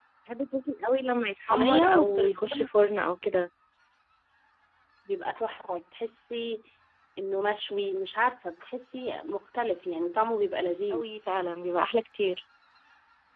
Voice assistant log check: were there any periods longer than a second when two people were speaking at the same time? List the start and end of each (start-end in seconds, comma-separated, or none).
1.4-2.7